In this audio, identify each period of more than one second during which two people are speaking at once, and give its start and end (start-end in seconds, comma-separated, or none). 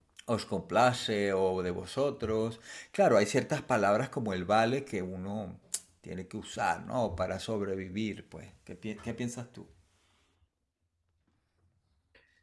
none